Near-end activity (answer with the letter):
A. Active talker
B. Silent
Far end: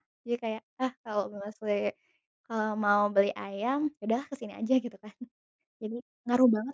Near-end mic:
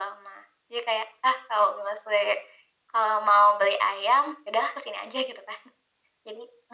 B